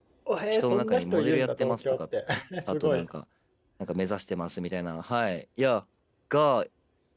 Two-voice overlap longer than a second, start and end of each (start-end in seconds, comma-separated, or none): 0.5-2.0